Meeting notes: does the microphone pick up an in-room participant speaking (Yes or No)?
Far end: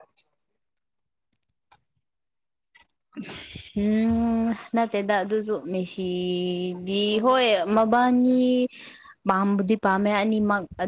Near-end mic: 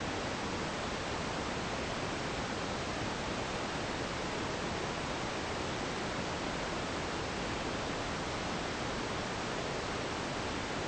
No